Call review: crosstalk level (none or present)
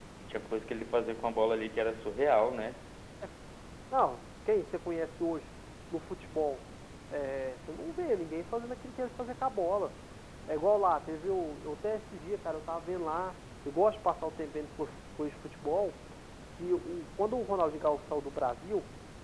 none